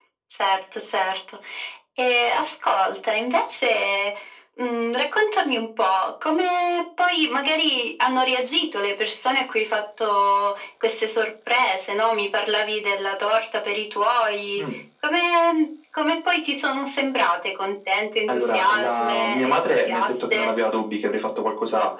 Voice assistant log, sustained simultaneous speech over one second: present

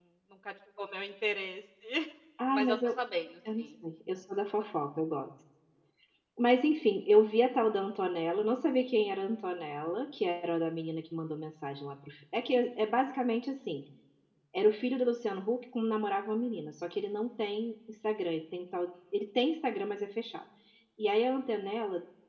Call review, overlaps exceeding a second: none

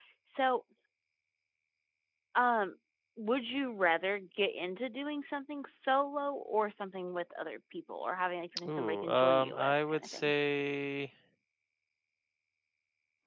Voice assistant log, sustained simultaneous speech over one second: present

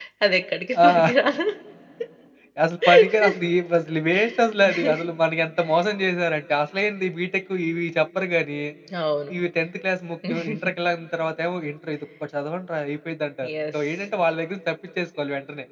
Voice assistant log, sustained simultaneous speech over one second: none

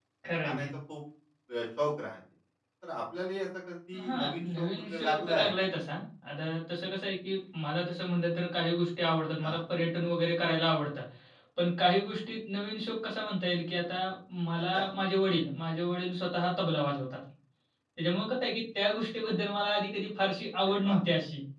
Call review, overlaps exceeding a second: present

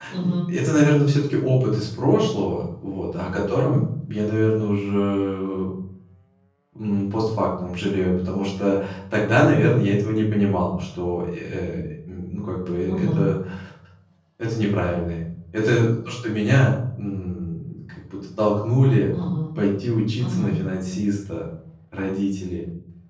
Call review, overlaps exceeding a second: none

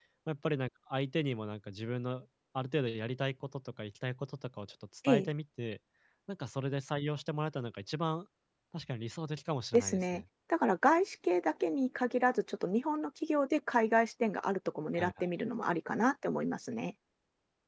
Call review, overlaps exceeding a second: none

